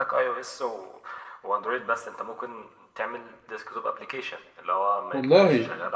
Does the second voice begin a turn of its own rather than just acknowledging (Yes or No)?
No